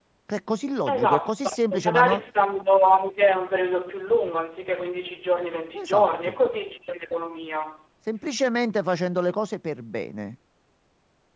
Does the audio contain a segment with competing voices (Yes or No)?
Yes